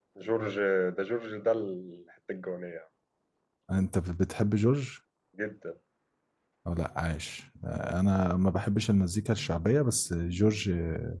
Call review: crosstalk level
none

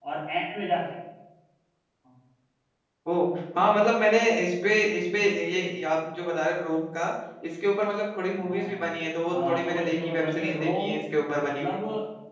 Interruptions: present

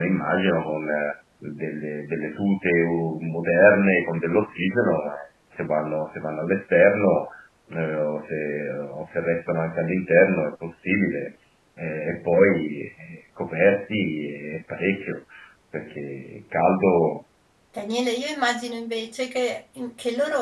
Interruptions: none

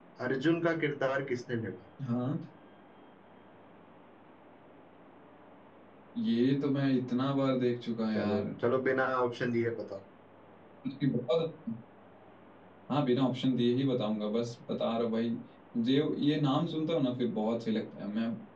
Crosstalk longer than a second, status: none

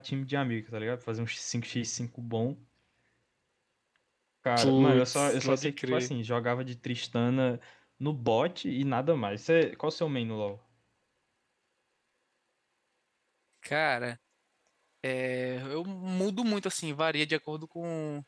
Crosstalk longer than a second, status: present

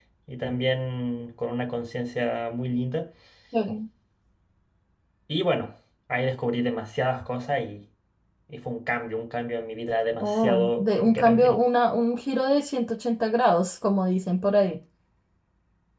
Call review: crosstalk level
present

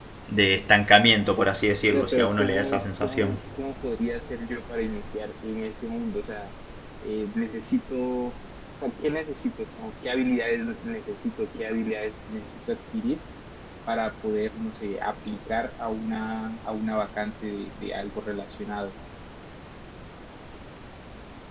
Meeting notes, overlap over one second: present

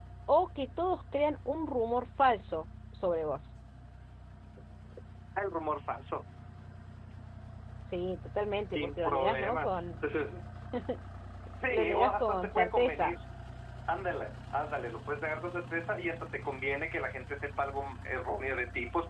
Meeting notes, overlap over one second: present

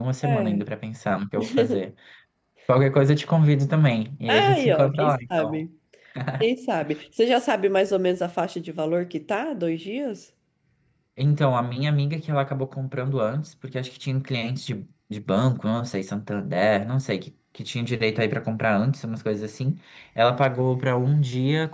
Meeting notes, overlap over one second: present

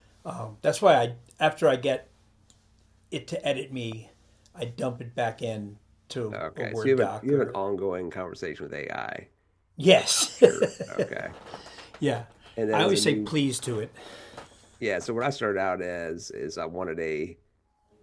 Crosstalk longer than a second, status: present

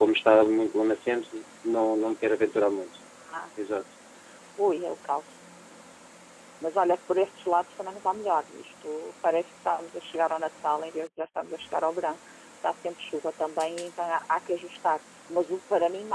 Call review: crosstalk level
none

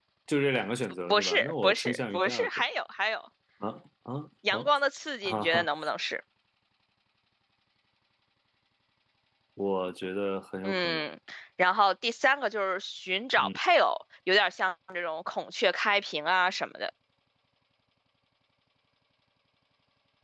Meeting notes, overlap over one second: present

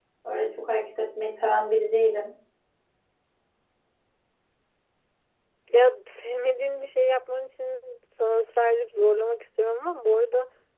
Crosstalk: none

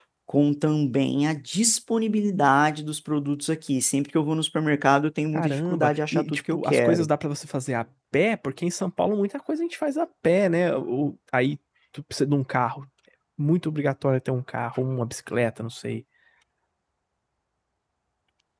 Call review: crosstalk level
present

